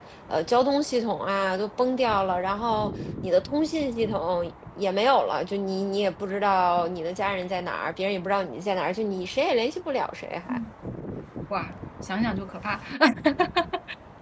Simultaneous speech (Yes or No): No